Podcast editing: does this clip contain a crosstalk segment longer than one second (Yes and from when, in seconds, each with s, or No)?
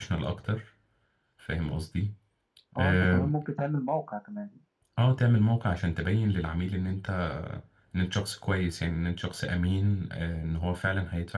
No